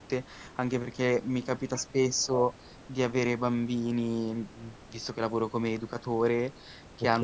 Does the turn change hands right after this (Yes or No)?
No